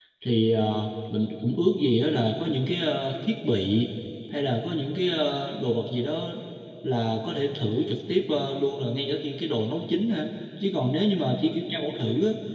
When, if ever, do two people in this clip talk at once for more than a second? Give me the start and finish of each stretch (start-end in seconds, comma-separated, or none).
none